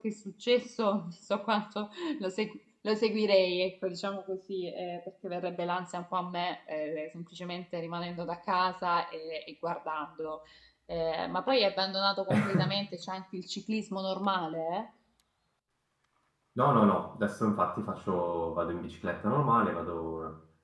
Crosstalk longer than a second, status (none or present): none